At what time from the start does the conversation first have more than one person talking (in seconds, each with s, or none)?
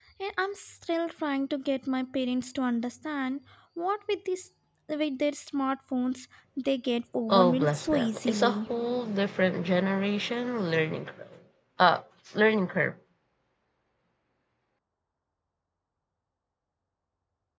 7.3 s